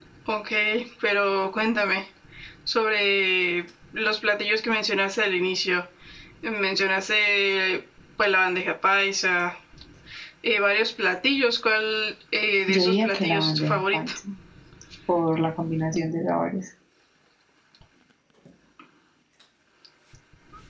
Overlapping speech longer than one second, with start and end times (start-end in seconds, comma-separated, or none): 12.7-14.1